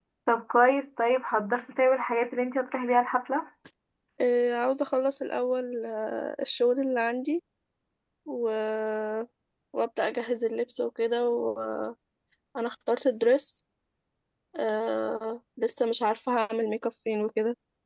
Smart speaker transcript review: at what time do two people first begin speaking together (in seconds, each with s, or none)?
none